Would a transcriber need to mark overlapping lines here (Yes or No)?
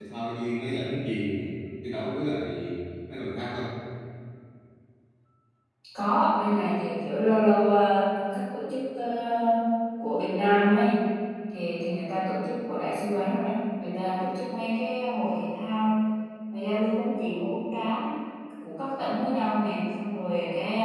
No